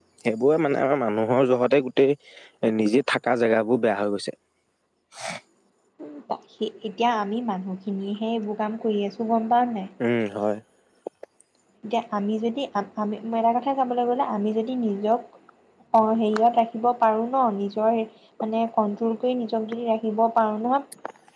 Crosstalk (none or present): none